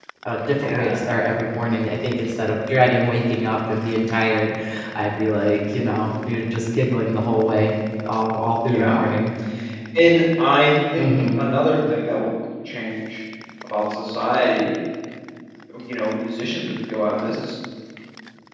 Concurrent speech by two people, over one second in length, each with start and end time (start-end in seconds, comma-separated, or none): none